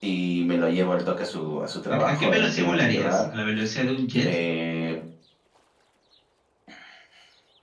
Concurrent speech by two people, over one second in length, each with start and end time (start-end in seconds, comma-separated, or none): 1.9-3.2